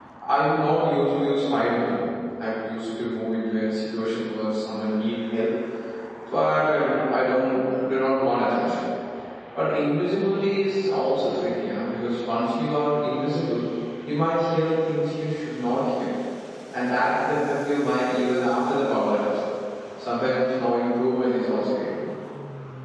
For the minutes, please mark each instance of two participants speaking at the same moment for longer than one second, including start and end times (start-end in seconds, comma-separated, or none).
none